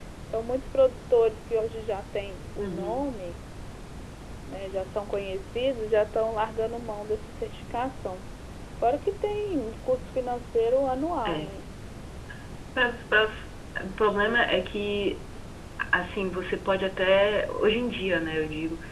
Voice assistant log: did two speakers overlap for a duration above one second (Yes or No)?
No